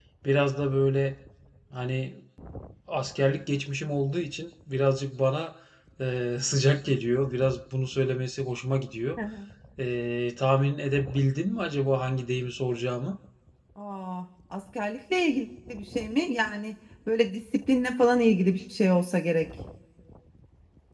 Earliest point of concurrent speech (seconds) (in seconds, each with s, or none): none